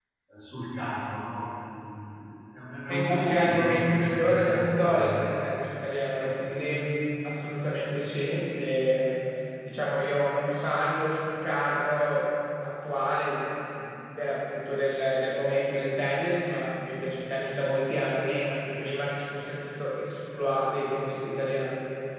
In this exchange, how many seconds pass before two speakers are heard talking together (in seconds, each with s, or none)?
2.9 s